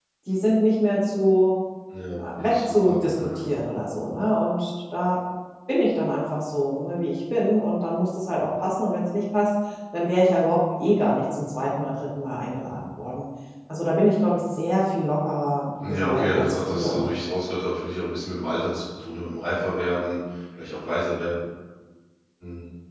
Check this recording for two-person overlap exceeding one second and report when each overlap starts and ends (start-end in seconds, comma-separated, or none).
2.2-3.4, 15.9-17.1